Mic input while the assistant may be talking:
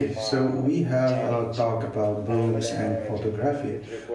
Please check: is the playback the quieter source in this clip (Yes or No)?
Yes